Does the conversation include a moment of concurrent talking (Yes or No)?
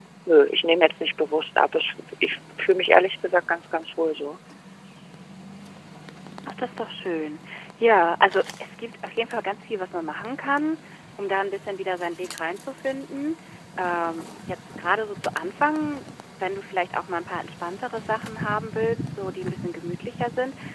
No